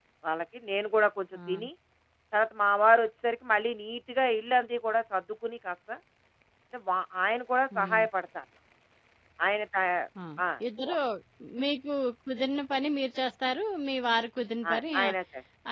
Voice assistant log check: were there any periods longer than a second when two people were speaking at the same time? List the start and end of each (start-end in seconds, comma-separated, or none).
none